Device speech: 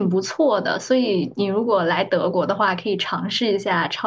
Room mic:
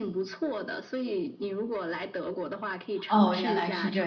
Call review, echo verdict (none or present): present